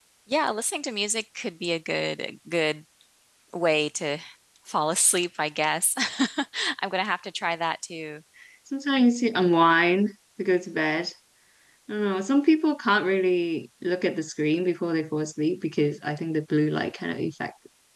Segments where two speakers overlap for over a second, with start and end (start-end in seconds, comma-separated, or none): none